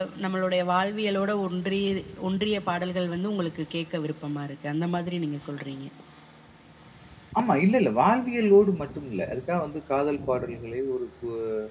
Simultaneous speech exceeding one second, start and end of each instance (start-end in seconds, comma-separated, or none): none